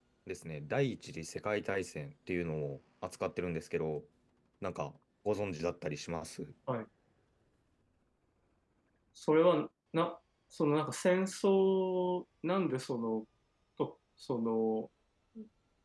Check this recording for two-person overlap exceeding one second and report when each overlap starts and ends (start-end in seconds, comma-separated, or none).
none